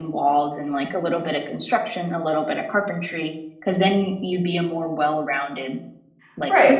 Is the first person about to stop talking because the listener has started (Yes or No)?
Yes